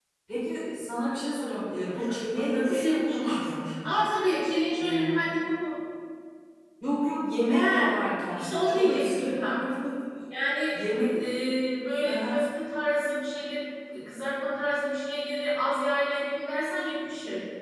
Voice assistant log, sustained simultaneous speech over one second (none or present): present